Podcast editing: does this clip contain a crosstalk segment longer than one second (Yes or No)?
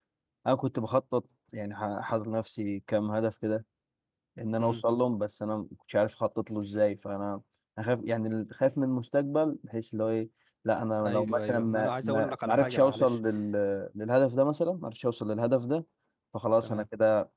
Yes